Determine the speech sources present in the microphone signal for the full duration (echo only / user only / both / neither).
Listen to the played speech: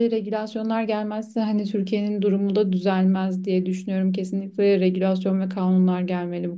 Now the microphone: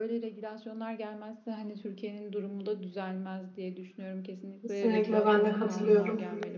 both